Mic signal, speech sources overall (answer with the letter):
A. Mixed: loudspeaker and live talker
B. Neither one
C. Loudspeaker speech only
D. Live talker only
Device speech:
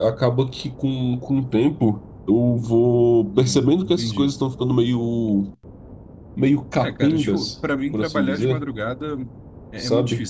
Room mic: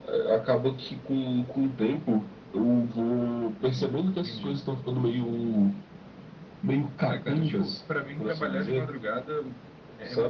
C